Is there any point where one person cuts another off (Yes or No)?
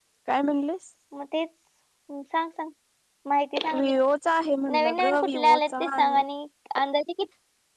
Yes